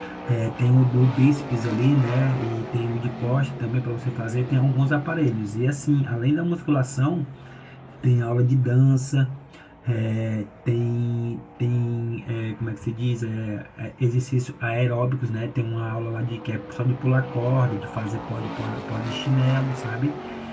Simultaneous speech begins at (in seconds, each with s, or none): none